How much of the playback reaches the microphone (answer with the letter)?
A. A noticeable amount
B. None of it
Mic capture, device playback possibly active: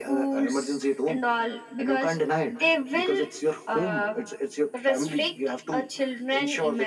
A